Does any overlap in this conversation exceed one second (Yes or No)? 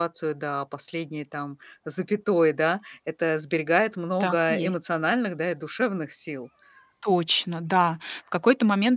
No